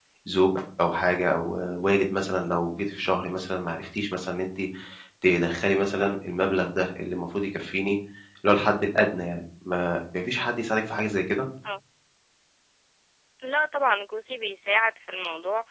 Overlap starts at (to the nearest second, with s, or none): none